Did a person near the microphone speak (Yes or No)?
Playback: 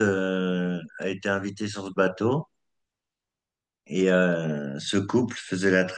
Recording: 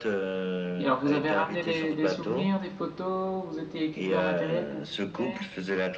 Yes